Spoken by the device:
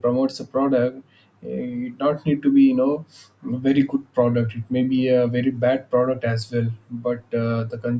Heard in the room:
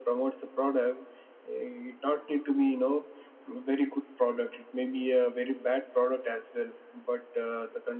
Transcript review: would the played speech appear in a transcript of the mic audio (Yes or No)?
Yes